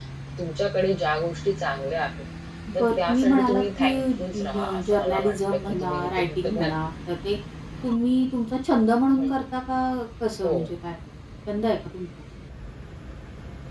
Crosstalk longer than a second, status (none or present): present